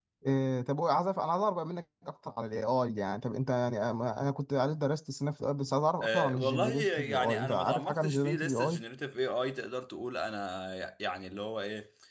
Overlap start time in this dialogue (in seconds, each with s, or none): 6.0 s